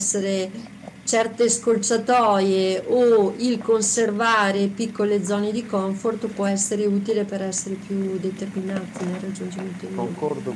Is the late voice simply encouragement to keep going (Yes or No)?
No